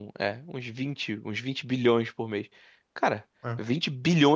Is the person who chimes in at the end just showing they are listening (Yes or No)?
Yes